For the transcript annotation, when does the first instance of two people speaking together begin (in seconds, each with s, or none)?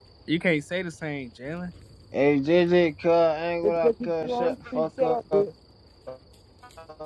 3.6 s